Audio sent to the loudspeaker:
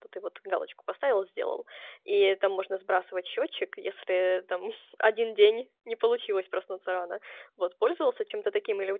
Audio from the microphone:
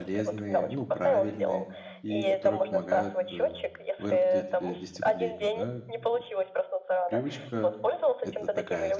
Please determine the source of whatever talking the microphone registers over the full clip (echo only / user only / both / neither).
both